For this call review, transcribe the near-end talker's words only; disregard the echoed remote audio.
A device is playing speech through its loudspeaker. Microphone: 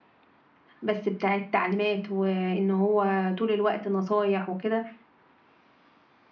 بس بتاع التعليمات، وإن هو طول الوقت نصايح وكده،

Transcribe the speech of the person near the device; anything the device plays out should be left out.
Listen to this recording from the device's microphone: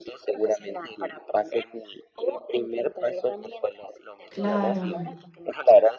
claro.

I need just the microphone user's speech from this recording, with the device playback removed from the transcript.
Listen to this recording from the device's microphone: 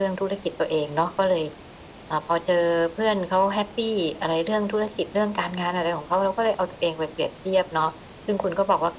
none

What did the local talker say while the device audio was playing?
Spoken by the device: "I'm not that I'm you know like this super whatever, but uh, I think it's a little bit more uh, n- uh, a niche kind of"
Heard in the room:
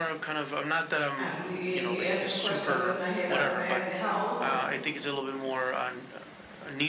Oh, you you you answered the question that was in my head. I was gonna ask you, how old is he?

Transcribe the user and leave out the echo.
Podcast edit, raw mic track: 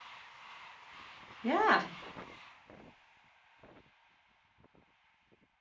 Yeah.

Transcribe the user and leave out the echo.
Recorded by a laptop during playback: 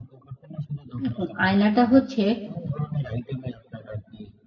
এখন আয়নাটা হচ্ছে

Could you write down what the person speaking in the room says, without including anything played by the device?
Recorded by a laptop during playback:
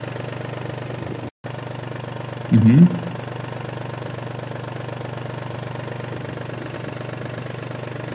Mh-mh.

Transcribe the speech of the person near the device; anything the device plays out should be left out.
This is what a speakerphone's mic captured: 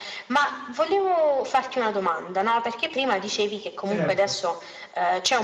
certo.

